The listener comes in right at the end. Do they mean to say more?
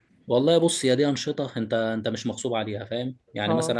No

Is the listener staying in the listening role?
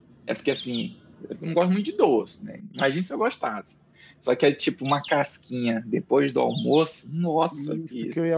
No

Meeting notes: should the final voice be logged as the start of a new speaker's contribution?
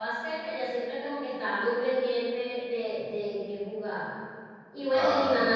No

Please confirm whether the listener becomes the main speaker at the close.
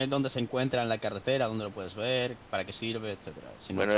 Yes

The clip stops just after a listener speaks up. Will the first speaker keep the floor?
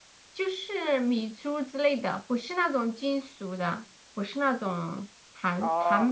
No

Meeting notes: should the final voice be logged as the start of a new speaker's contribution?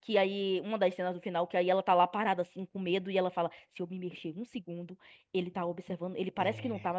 No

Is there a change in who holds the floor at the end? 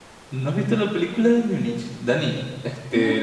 No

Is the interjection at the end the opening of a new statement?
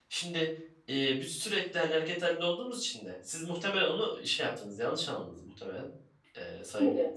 No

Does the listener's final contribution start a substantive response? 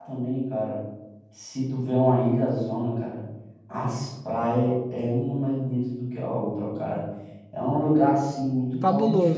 No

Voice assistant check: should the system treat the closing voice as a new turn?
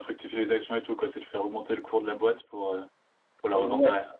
Yes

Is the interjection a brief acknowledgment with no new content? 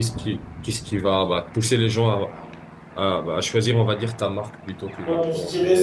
No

